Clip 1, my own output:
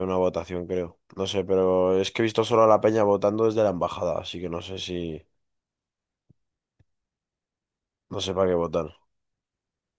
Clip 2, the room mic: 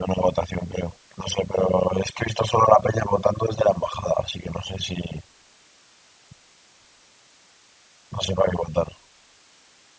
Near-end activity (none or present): none